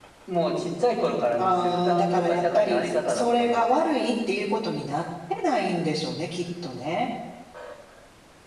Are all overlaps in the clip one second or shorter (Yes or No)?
No